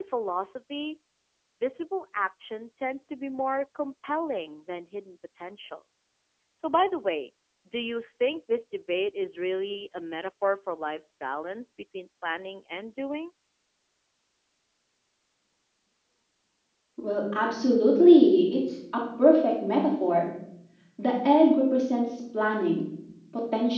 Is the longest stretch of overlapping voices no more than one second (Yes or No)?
Yes